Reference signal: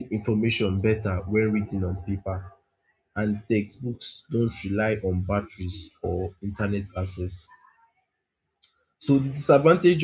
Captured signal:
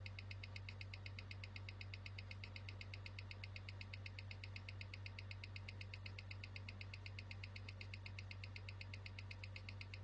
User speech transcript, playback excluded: none

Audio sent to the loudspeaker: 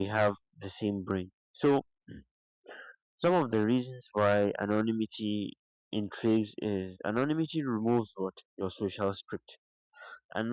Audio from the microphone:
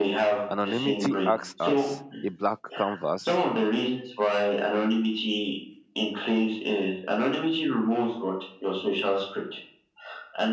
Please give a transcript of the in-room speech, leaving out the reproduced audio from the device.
Anonymity acts as a black canvas

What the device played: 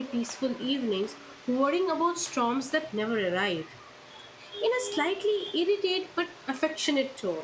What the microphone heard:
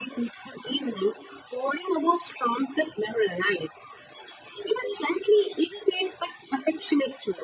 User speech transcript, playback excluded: none

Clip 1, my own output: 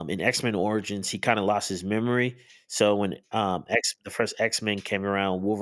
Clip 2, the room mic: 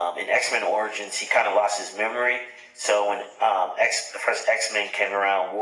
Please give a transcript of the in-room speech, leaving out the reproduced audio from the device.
none

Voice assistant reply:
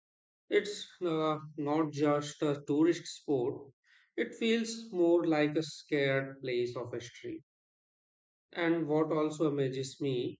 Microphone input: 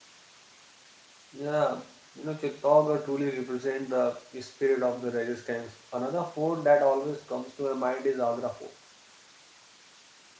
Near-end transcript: Yeah, you know, Chittaugarh truly represent the spirit of the resistance. Another fort that always comes to my mind is Agra Fort.

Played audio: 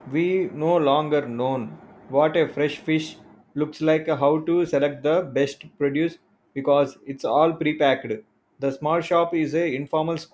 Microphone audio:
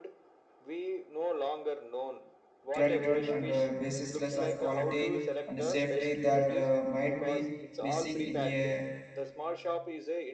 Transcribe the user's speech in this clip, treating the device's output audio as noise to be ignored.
gratitude and uh, basisless of quality and safety that uh, might be missing in a

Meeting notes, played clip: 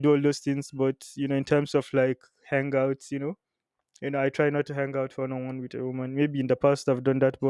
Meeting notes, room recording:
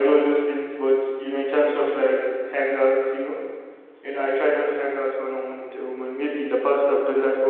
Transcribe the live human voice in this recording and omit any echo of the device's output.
none

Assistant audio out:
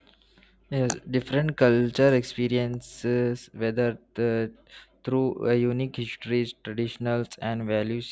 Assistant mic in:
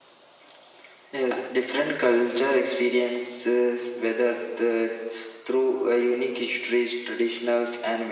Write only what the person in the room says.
none

